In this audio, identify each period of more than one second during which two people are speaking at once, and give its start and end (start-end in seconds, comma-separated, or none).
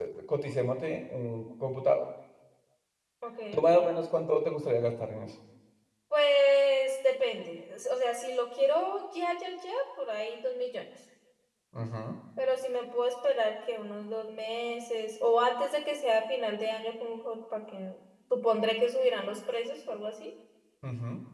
none